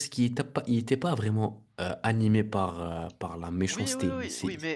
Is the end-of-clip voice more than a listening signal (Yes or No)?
Yes